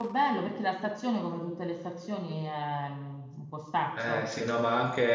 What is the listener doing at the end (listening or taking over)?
taking over